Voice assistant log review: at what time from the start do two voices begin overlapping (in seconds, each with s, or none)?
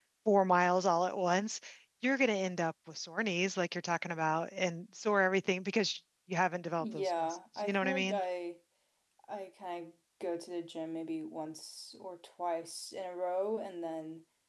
6.8 s